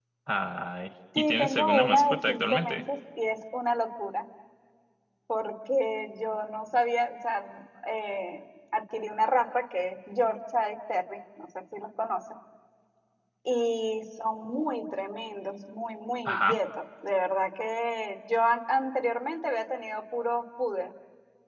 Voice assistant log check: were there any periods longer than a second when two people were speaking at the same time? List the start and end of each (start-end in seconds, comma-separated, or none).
1.1-2.8